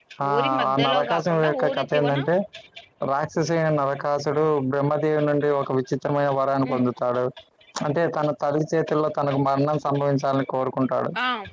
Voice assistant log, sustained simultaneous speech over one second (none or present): present